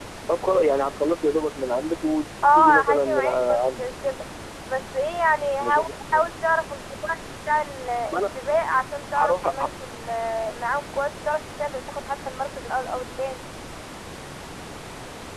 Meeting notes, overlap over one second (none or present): present